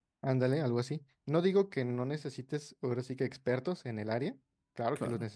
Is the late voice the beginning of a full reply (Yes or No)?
No